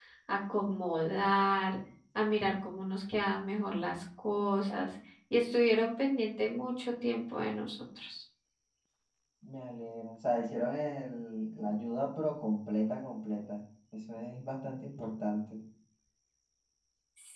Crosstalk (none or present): none